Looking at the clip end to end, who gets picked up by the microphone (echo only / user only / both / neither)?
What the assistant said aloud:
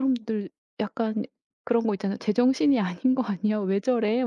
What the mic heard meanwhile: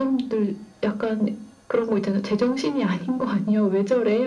echo only